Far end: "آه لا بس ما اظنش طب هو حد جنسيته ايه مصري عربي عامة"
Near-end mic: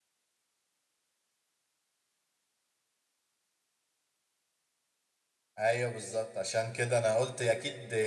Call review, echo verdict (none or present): none